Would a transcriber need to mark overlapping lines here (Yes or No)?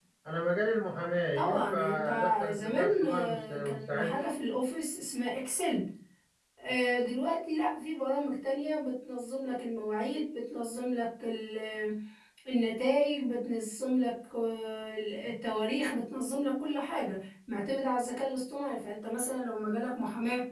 Yes